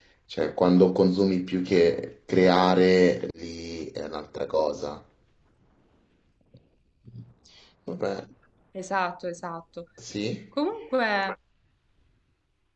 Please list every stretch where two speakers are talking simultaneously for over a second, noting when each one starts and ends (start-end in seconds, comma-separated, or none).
none